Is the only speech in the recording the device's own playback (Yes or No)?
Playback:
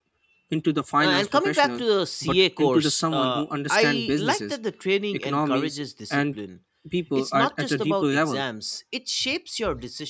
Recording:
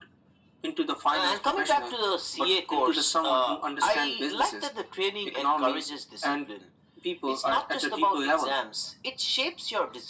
Yes